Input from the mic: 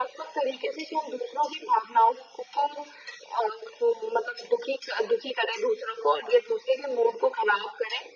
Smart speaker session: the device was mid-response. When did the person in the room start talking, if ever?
none

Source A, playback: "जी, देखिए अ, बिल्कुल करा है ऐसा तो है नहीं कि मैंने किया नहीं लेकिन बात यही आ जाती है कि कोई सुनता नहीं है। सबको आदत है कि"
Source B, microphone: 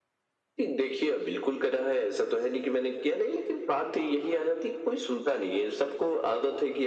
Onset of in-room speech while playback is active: none

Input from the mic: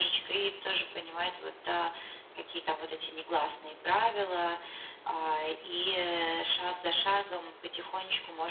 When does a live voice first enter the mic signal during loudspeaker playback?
none

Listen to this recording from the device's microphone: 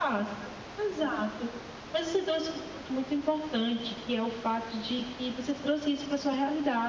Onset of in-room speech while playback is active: none

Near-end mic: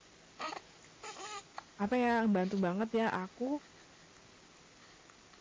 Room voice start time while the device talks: 1.8 s

